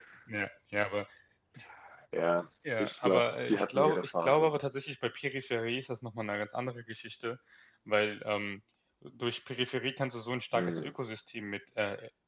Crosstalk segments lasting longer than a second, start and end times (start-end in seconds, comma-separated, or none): 2.8-4.5